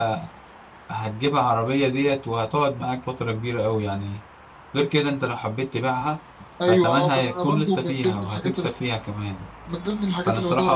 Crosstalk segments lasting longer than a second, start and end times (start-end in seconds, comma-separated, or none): 6.7-8.5